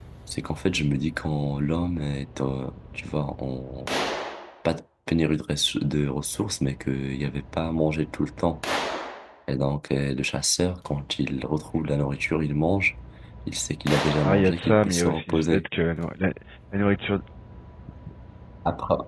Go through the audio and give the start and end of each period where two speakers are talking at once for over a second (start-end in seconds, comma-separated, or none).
14.2-15.6